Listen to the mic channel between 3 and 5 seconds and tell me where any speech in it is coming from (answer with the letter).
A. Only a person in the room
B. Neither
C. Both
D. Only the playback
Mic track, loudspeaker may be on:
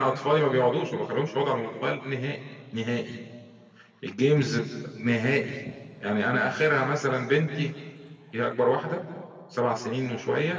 D